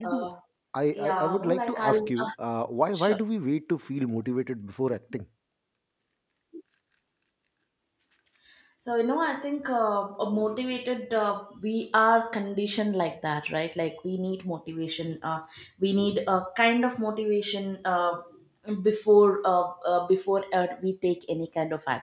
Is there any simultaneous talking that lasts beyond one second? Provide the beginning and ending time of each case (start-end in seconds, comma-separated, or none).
1.0-2.3